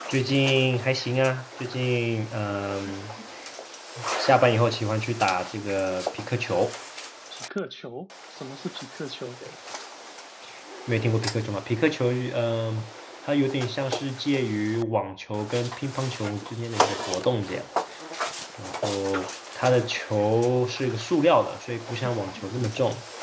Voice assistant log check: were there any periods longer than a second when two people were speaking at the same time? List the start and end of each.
none

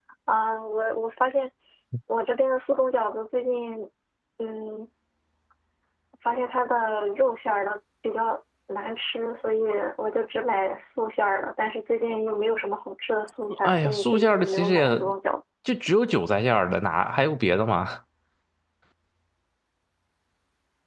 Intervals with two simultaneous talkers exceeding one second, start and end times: 13.6-14.9

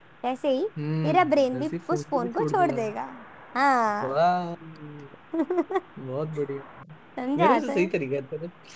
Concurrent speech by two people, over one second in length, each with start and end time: 1.0-2.8

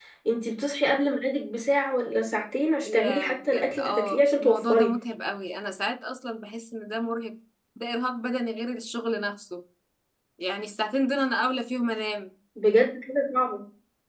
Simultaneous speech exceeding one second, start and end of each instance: 2.9-4.9

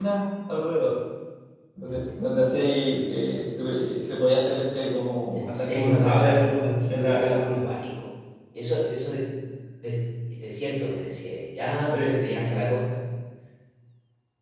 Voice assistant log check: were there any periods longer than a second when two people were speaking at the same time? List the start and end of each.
5.3-7.5

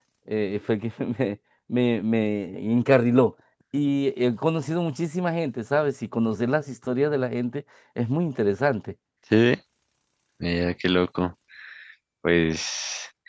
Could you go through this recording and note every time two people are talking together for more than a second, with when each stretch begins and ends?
none

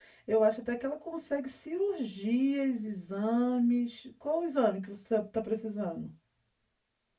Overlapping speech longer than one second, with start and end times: none

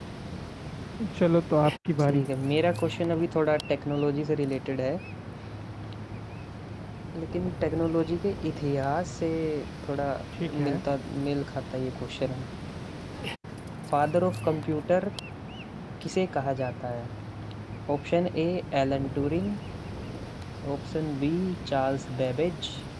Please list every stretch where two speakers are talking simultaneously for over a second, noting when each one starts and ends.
none

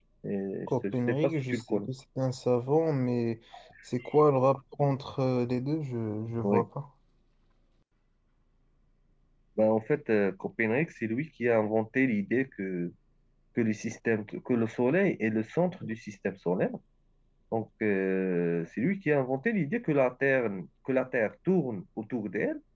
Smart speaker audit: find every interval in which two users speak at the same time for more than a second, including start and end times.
0.7-1.9

